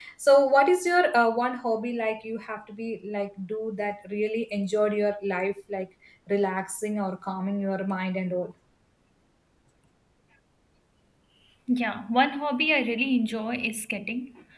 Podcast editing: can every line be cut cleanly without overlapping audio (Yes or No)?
Yes